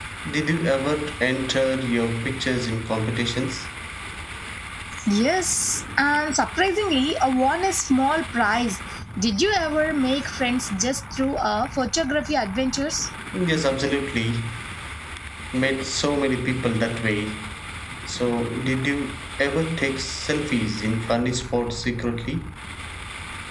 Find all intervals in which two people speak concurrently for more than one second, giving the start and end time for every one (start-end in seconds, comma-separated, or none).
none